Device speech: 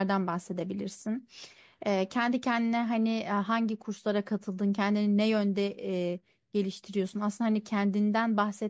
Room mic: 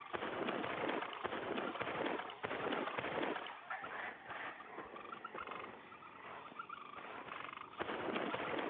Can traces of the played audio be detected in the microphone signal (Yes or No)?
No